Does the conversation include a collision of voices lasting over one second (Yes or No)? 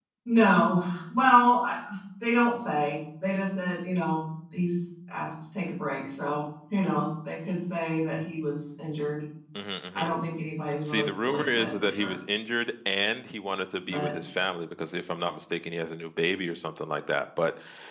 Yes